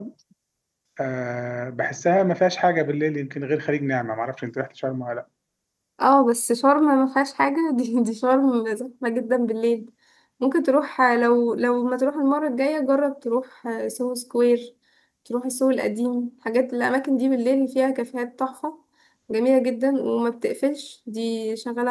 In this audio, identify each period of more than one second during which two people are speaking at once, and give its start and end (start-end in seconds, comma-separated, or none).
none